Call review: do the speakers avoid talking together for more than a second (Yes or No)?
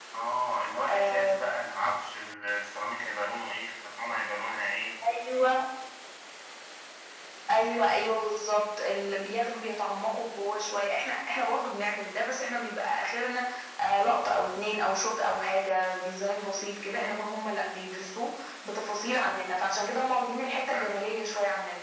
Yes